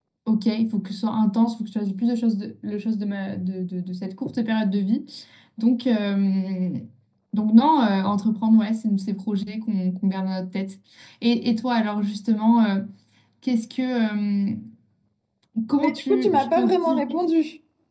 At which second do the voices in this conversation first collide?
15.8 s

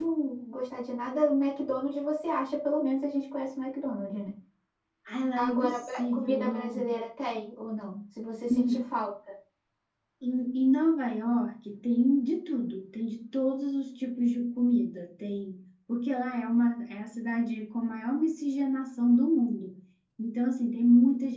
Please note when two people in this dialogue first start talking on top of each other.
5.4 s

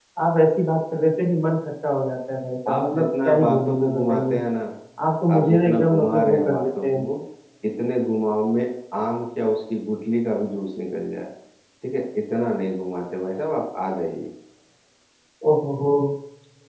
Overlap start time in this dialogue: 2.7 s

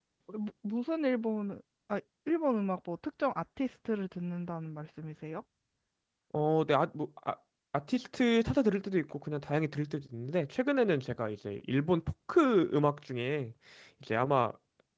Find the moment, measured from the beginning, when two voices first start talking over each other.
none

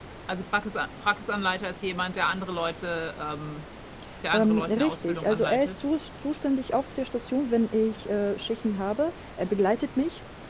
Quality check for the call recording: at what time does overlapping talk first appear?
4.3 s

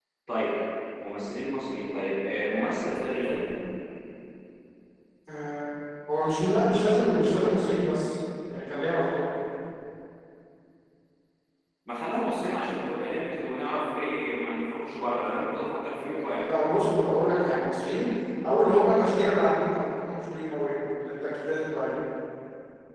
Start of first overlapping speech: none

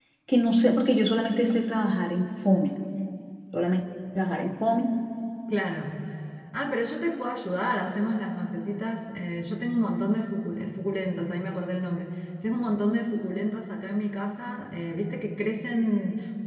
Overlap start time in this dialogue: none

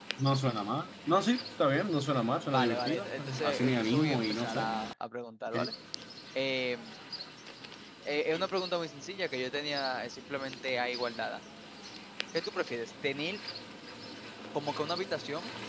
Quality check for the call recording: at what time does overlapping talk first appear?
2.5 s

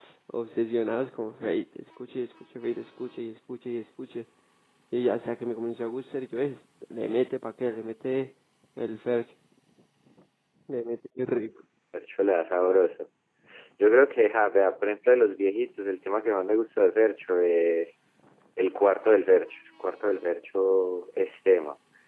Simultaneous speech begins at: none

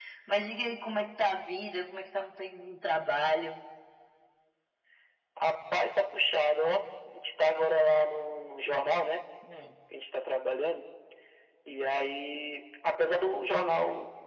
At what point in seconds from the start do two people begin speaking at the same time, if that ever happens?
none

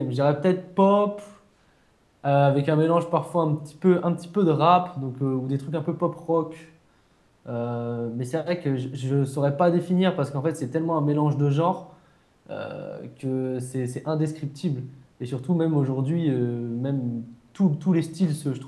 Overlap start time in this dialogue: none

